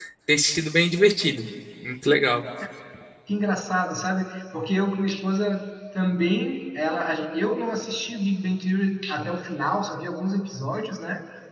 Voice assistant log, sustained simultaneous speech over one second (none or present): none